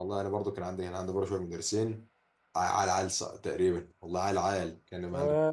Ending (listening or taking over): taking over